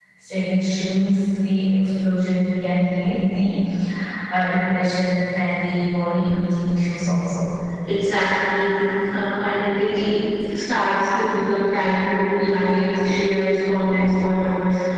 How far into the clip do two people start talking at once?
none

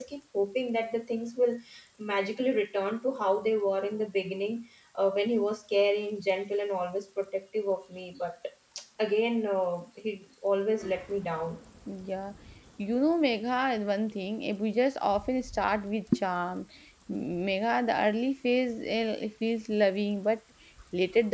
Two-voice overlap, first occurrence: none

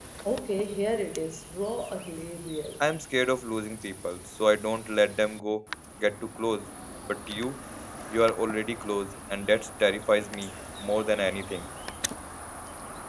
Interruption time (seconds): none

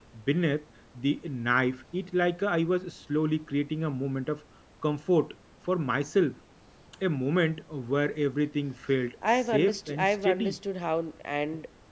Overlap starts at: 9.2 s

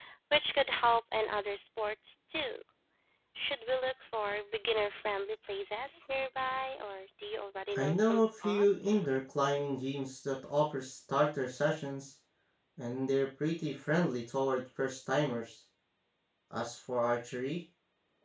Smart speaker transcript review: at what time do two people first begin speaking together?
7.7 s

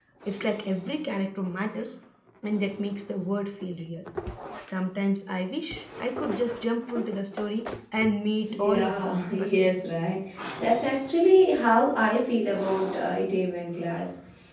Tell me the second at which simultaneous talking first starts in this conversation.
8.5 s

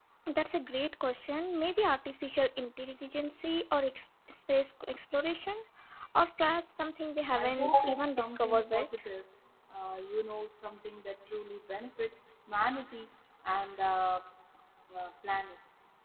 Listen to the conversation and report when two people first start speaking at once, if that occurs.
7.3 s

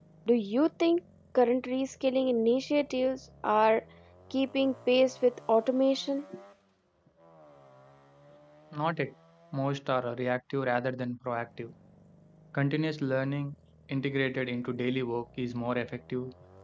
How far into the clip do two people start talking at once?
none

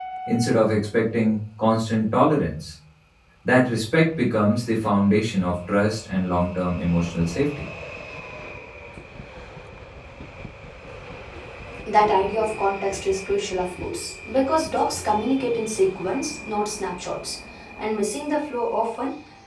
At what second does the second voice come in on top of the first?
none

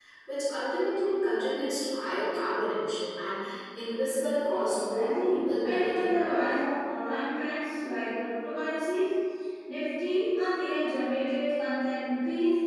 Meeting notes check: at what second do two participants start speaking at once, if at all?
4.7 s

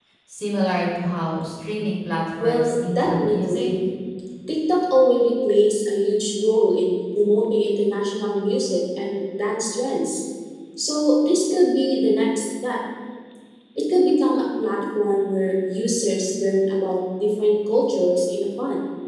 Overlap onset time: 2.4 s

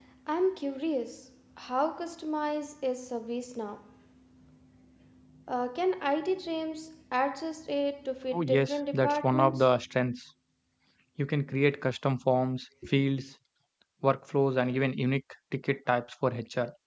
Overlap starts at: 8.3 s

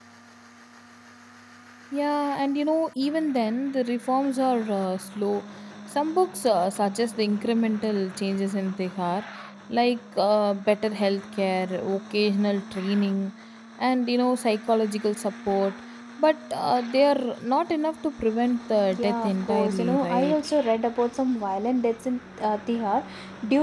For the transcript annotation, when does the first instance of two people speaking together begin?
18.9 s

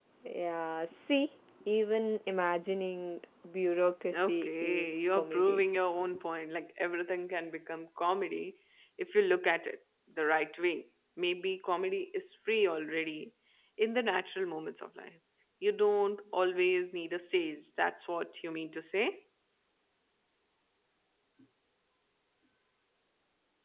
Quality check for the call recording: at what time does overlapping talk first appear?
4.1 s

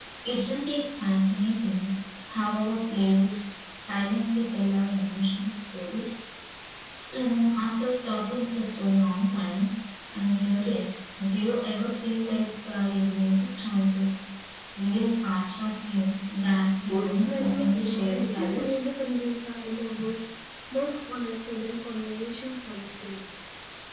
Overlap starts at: 16.9 s

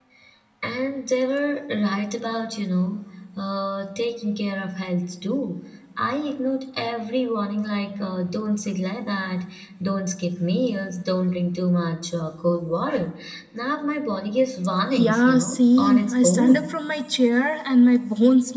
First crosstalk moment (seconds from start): 14.9 s

